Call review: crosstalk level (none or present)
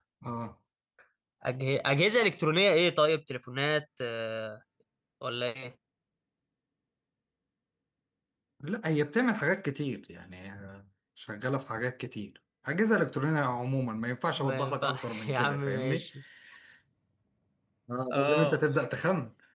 present